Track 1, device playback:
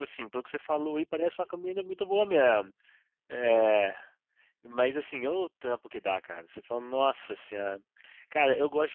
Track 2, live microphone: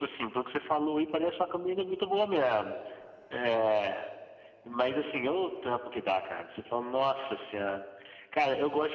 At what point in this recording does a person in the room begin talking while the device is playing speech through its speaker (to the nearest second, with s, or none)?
none